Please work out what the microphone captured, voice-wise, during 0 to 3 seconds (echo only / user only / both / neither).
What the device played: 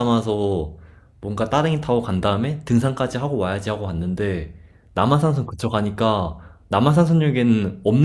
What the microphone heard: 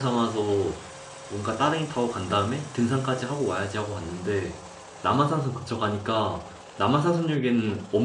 echo only